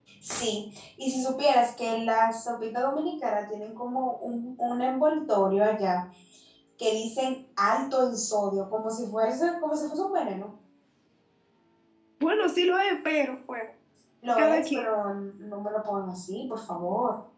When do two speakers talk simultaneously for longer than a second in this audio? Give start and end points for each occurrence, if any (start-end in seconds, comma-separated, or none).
none